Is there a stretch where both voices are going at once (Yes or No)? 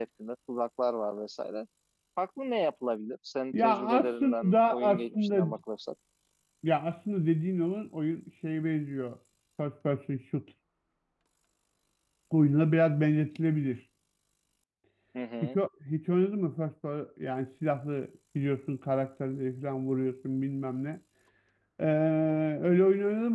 Yes